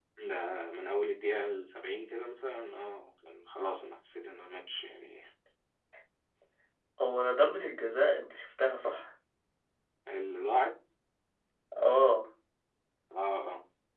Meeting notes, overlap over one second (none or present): none